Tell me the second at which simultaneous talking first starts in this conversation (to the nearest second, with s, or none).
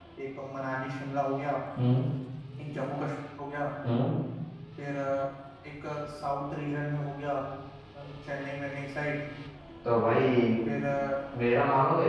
none